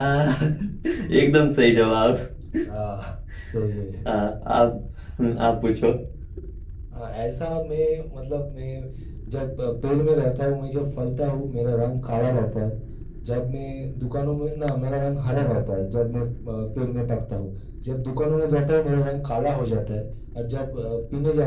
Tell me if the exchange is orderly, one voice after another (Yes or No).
Yes